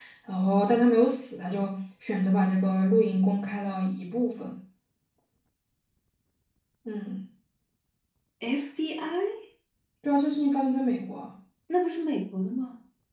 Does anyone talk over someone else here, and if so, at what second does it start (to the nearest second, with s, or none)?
none